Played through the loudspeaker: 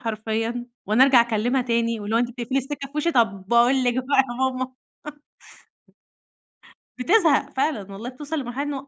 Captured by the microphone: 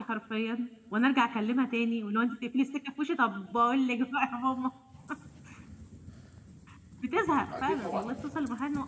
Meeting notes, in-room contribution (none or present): present